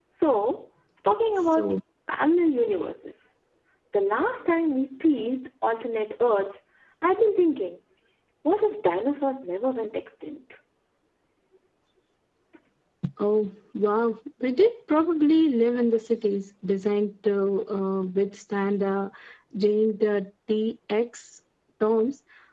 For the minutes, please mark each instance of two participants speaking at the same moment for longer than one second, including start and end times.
none

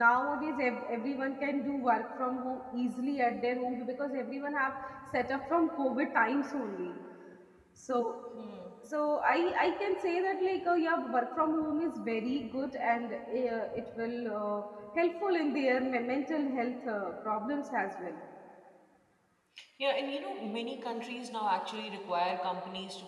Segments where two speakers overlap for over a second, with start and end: none

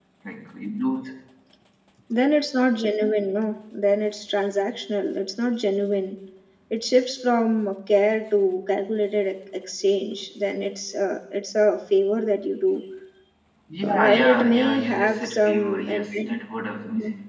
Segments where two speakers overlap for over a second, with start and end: 13.8-16.4

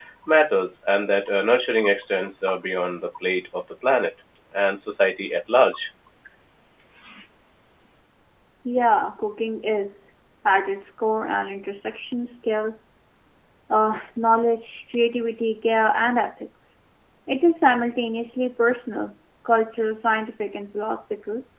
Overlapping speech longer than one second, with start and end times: none

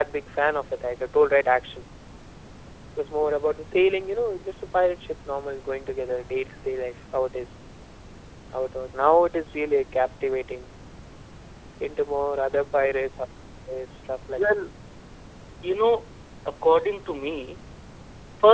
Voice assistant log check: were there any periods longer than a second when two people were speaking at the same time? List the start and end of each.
none

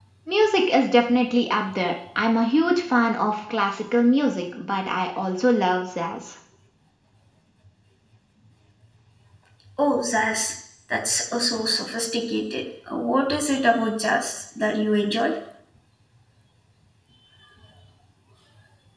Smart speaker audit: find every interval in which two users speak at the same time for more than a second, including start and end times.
none

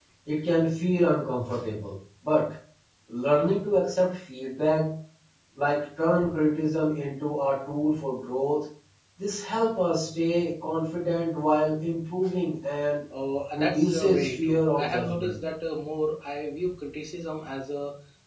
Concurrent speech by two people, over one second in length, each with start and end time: 13.5-15.3

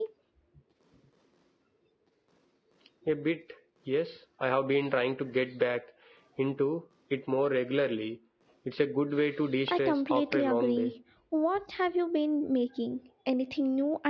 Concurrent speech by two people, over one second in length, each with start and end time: 9.7-10.9

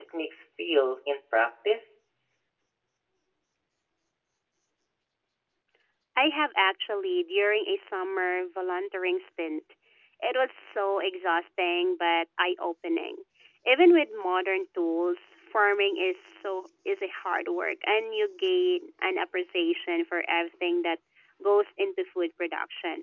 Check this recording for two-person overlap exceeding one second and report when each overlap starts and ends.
none

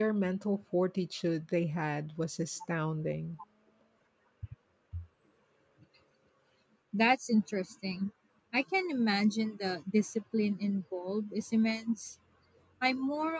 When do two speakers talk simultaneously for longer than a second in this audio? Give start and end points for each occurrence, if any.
none

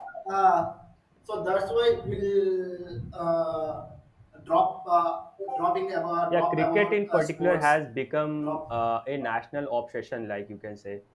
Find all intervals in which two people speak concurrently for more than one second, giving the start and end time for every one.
6.3-7.7

